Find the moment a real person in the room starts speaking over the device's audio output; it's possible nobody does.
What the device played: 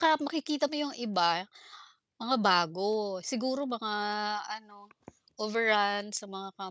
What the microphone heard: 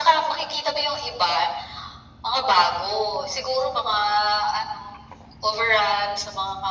none

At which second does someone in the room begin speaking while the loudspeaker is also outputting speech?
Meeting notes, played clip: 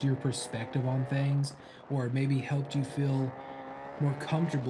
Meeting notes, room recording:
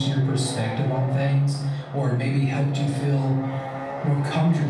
none

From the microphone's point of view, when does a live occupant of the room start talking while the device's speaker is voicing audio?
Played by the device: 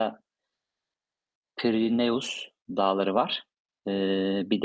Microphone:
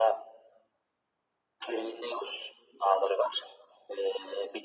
none

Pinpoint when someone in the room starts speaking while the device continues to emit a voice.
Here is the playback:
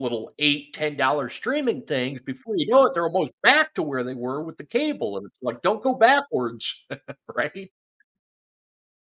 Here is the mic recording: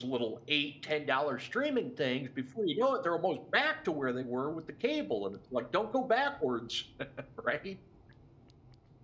none

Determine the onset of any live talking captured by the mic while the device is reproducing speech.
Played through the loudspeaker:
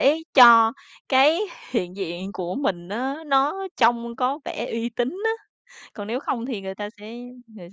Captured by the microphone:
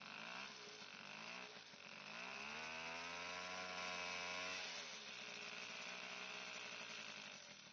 none

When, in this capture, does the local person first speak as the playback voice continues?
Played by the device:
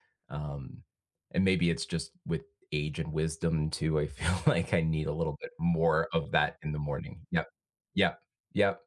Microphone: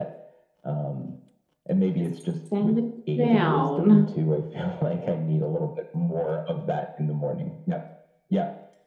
2.0 s

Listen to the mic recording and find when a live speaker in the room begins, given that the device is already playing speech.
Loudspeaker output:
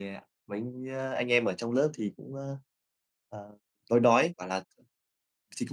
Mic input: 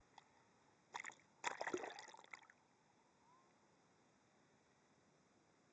none

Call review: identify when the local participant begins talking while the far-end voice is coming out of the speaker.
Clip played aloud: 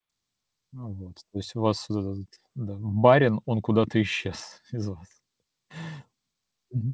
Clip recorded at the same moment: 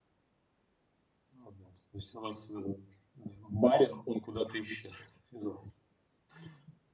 none

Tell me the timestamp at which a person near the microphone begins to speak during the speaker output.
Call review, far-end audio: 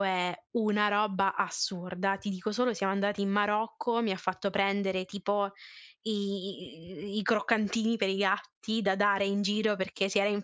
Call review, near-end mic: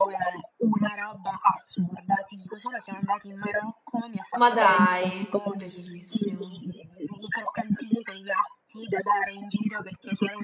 4.3 s

